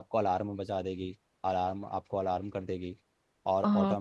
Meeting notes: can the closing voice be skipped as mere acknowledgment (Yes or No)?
Yes